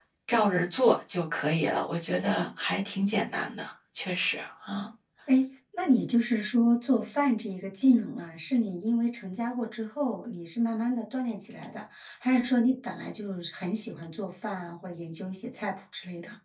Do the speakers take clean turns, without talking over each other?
Yes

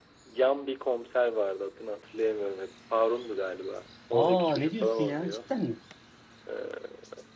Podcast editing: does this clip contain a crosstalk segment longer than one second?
Yes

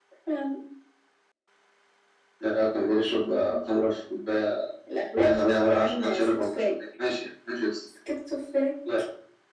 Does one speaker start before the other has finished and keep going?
Yes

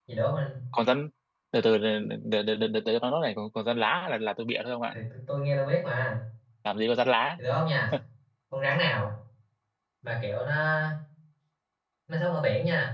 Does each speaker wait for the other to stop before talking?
Yes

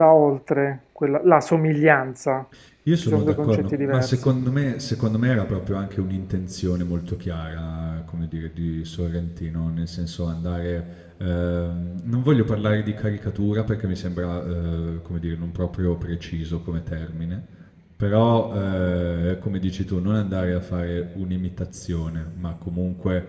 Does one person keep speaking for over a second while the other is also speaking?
Yes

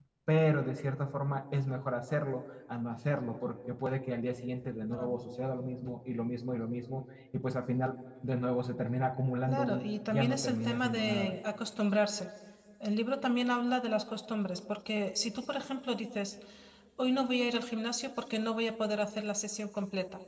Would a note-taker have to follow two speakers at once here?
Yes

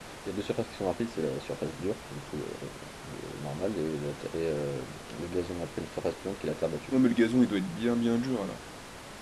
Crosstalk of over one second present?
No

